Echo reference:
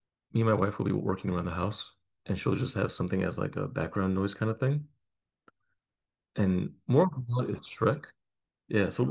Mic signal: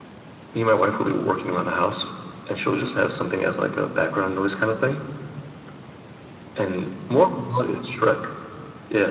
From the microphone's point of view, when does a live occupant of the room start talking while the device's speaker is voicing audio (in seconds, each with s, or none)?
none